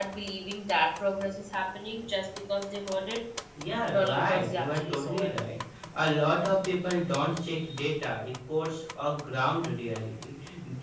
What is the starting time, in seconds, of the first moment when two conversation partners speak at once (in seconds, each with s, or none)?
3.9 s